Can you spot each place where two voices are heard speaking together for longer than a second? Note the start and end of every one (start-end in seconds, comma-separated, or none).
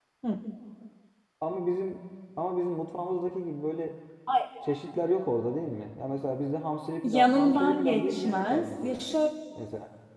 7.0-9.0